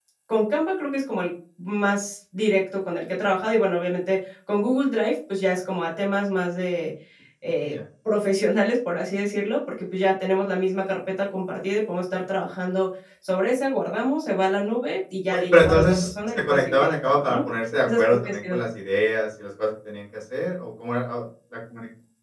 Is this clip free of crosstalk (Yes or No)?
No